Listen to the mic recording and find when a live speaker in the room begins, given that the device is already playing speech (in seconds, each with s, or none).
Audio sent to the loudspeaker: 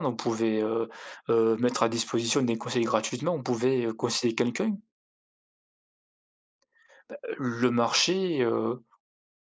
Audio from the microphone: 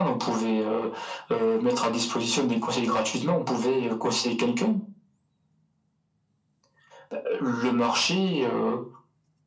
none